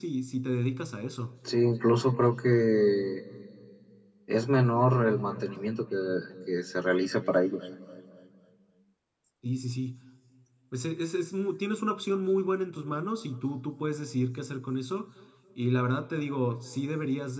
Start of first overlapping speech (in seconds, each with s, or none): none